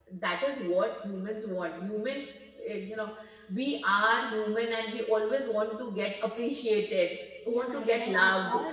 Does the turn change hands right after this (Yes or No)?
Yes